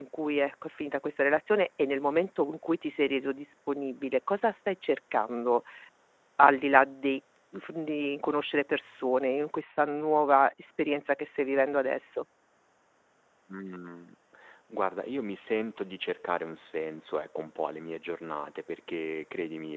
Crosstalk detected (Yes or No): No